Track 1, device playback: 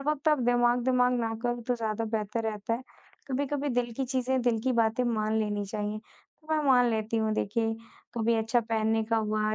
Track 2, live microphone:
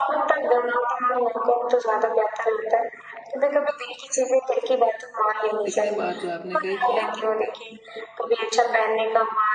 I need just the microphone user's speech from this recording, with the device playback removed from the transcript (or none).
लेकिन ये बात जो आपने कही कि